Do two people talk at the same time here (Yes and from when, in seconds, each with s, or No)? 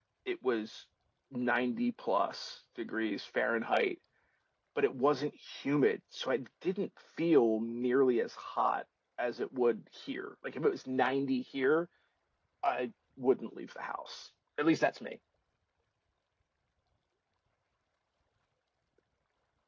No